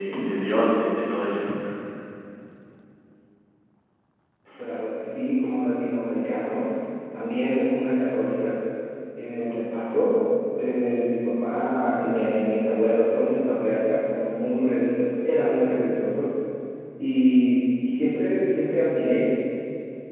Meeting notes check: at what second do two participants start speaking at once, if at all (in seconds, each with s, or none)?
none